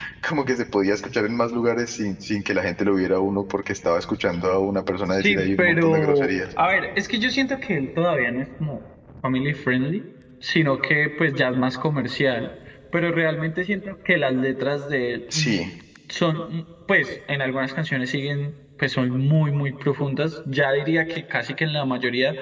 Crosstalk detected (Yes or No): Yes